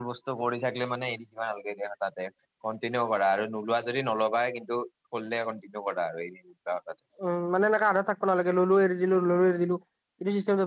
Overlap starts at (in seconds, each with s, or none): none